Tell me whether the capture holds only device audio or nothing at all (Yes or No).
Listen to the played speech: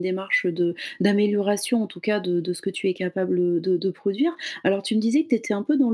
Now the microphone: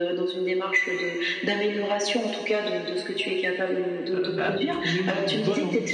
No